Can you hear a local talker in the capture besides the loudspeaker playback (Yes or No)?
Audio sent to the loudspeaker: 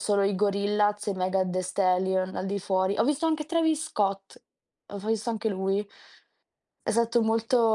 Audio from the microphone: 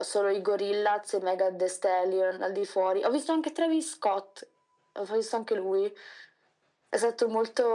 No